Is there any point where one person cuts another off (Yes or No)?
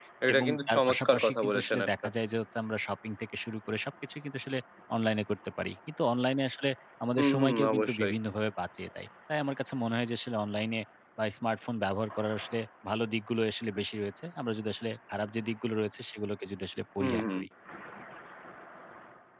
Yes